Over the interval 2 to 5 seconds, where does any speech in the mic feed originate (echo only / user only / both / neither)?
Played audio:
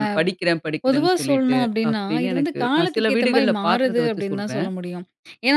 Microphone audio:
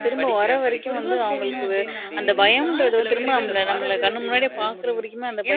both